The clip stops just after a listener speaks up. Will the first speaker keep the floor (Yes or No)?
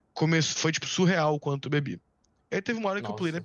Yes